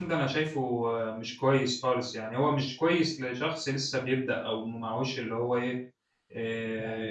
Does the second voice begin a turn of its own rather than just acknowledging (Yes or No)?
No